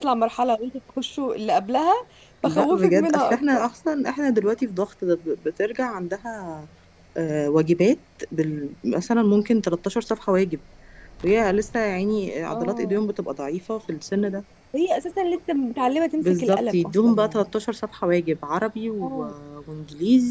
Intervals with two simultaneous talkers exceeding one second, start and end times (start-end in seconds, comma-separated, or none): 2.4-3.7, 16.2-17.5